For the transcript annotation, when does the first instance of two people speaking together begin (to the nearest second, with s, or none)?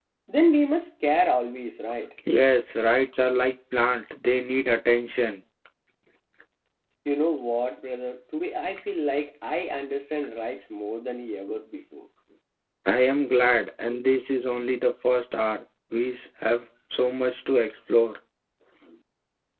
none